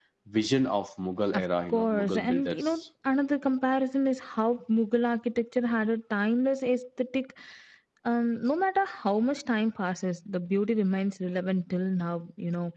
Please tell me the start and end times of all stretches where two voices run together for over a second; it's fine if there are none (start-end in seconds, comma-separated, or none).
1.3-2.7